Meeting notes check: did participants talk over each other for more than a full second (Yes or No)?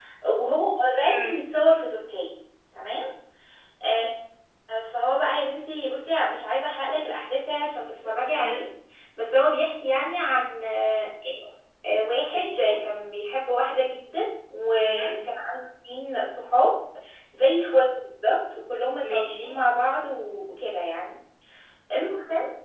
No